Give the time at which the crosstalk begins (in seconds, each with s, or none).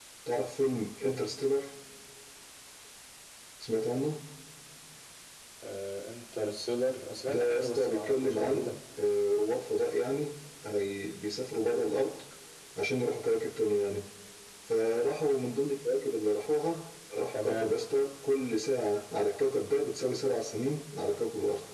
7.3 s